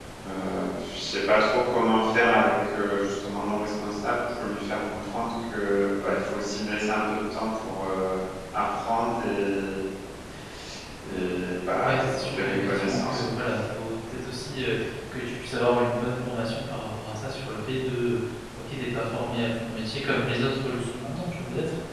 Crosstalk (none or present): present